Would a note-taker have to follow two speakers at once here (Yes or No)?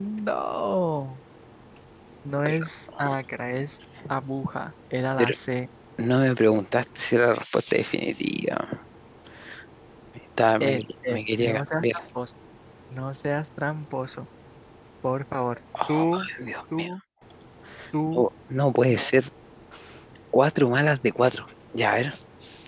Yes